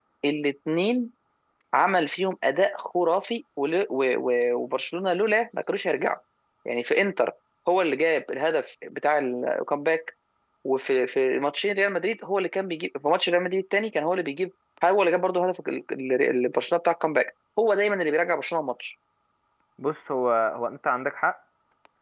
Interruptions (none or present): none